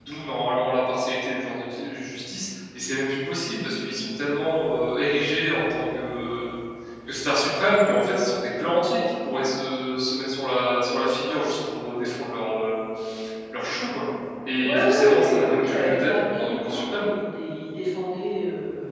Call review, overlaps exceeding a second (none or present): present